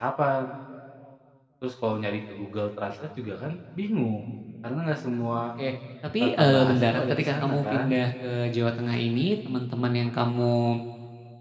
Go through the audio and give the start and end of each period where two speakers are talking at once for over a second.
6.2-7.9

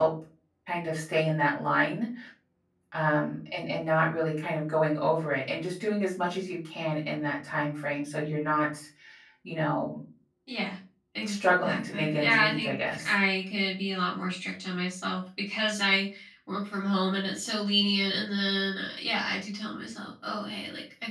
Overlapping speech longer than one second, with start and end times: 11.3-13.1

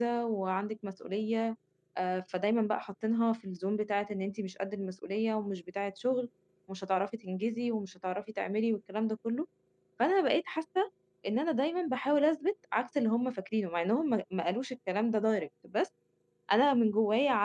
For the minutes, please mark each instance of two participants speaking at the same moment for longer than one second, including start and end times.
none

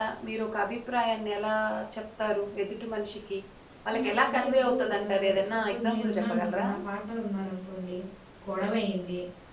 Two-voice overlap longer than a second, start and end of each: 3.9-6.7

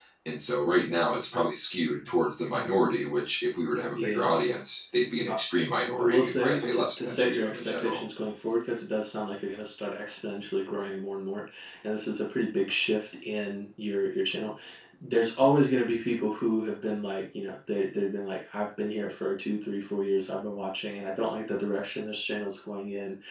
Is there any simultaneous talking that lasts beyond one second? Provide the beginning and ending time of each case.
6.0-8.0

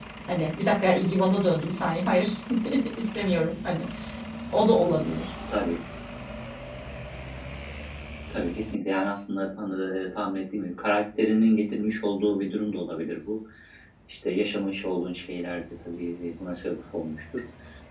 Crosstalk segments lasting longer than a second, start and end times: none

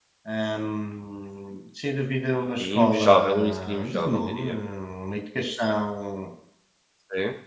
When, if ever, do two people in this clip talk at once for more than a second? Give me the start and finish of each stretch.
2.6-4.5

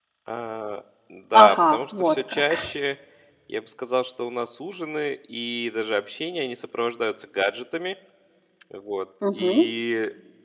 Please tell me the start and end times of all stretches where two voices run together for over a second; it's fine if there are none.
1.4-2.7

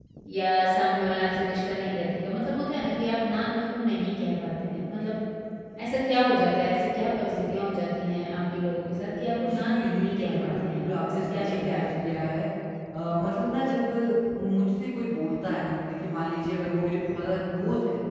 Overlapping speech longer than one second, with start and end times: 9.3-12.3

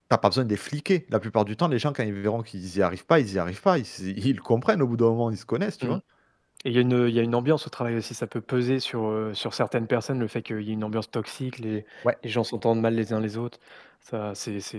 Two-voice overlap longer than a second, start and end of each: none

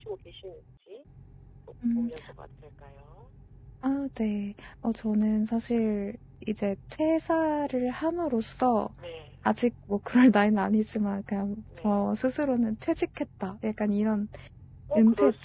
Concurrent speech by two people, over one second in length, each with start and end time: none

